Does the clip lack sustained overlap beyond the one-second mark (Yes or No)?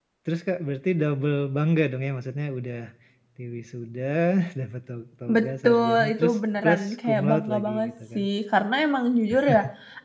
No